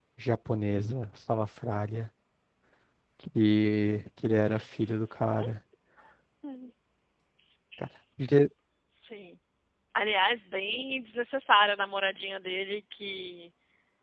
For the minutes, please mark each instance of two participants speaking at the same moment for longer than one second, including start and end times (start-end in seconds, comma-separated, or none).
none